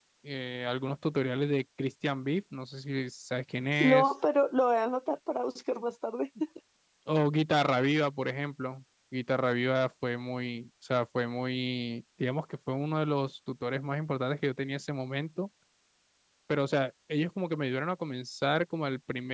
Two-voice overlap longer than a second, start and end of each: none

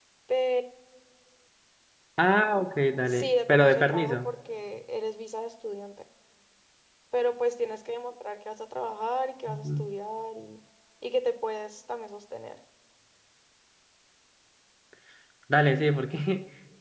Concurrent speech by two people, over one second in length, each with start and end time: 3.1-4.3

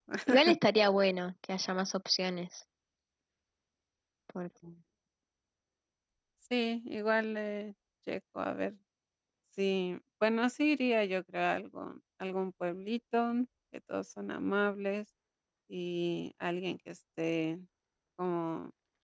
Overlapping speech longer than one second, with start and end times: none

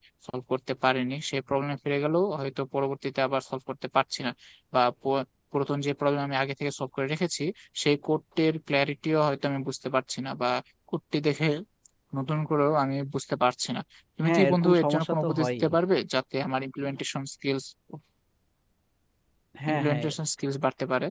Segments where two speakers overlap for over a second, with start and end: 14.2-15.6

